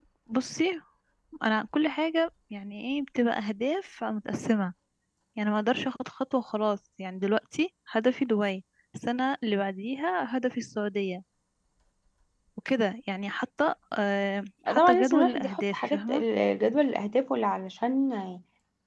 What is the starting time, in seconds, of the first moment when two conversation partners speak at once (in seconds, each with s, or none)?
14.7 s